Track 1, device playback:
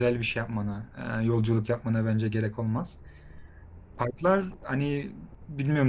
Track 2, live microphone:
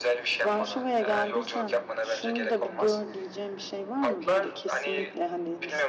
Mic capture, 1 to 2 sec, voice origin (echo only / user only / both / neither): both